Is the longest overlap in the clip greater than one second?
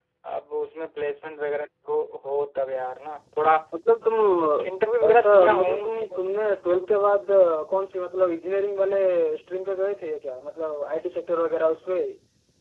Yes, from 4.6 s

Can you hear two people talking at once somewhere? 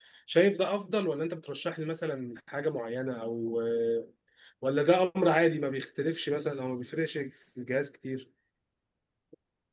No

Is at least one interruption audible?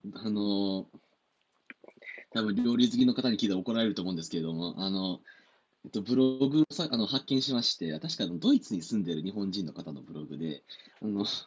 No

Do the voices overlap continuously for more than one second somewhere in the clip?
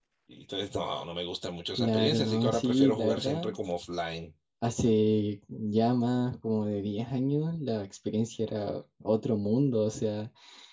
Yes, from 1.7 s

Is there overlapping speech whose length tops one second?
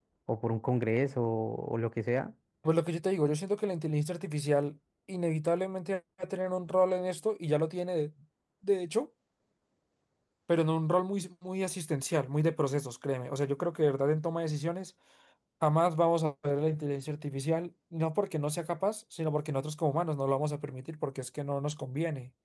No

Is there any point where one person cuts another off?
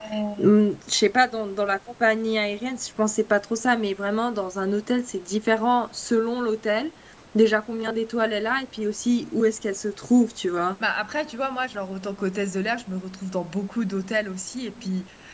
No

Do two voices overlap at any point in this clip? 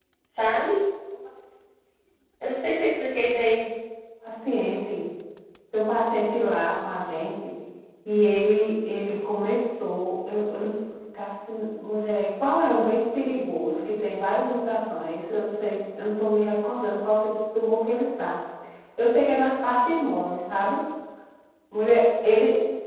No

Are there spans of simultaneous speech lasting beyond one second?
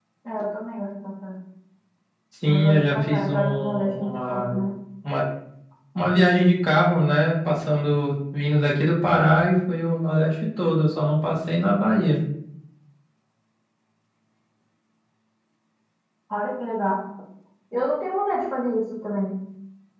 Yes, from 2.4 s

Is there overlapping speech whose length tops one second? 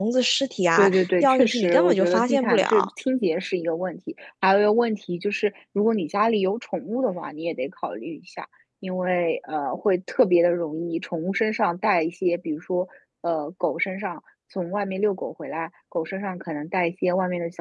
Yes, from 0.8 s

